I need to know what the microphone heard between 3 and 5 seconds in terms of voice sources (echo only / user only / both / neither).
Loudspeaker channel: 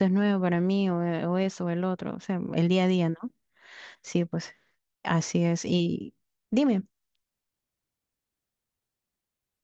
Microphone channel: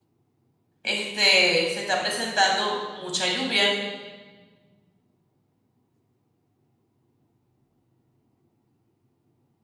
user only